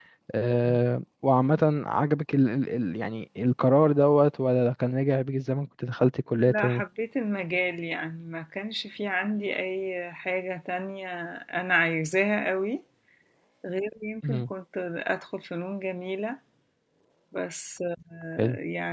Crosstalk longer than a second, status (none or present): none